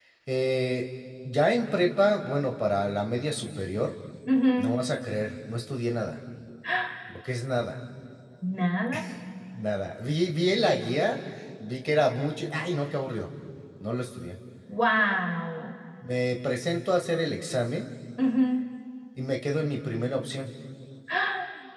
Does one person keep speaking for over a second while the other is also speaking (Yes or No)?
No